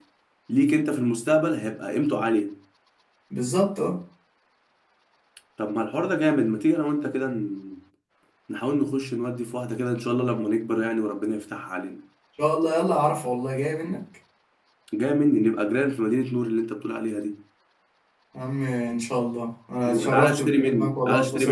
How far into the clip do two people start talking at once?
19.9 s

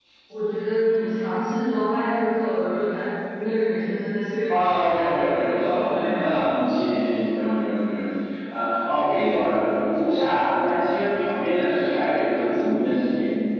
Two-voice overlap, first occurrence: 4.5 s

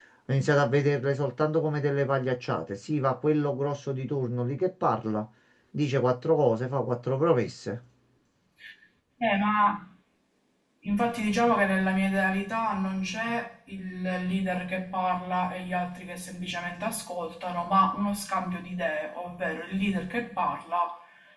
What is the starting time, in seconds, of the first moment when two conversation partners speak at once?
none

